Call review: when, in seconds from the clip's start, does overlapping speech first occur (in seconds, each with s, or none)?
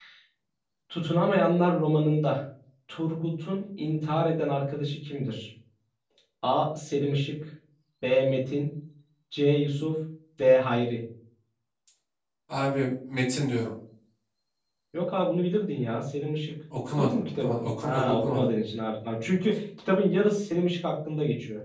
16.9 s